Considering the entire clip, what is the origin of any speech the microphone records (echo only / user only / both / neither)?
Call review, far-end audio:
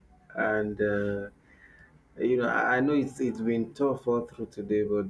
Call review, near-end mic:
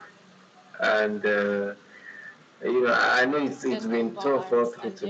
both